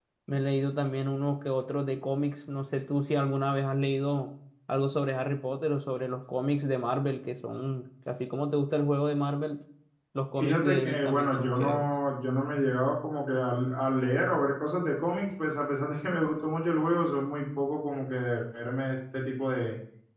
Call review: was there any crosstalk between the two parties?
Yes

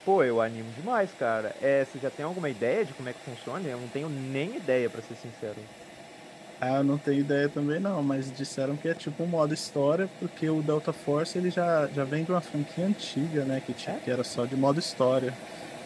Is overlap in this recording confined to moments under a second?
Yes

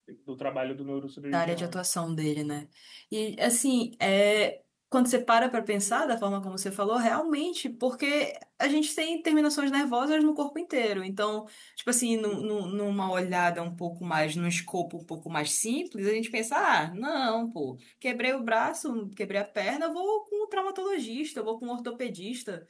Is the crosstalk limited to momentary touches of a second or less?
Yes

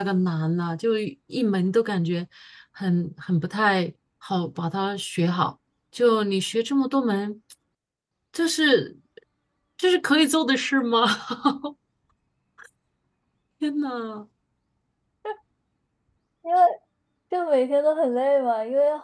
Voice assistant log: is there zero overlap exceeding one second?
Yes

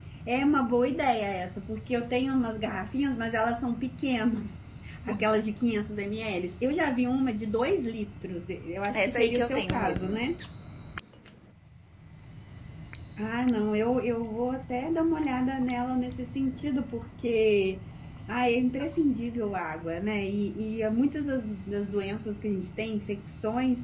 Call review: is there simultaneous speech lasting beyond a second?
Yes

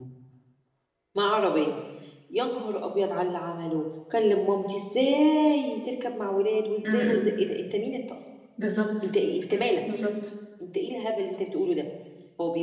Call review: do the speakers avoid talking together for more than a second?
Yes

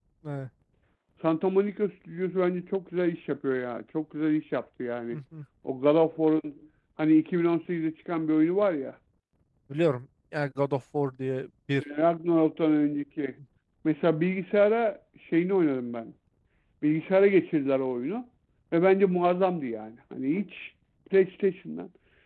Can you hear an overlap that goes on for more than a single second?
No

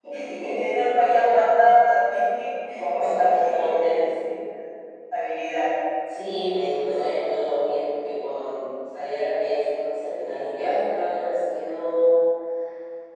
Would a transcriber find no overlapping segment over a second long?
No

